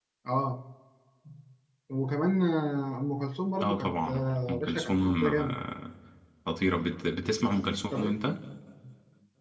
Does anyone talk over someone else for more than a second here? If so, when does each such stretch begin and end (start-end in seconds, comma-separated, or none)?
3.6-5.6